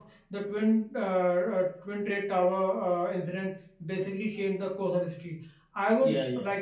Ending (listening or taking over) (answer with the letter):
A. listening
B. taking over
A